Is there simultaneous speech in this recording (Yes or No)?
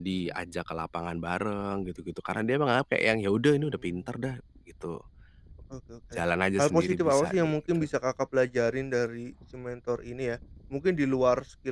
Yes